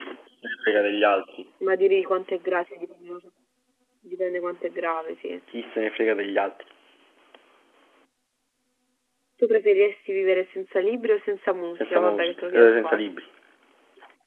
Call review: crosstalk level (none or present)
present